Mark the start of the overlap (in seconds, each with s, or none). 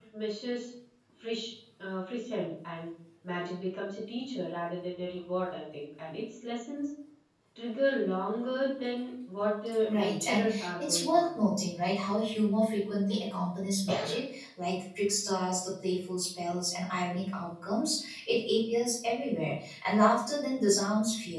9.9 s